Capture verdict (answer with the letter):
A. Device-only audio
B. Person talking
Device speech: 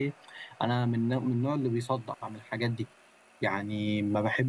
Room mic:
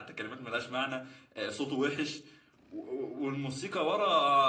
B